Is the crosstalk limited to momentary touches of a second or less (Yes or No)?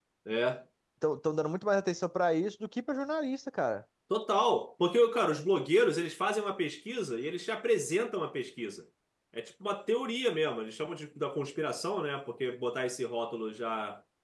Yes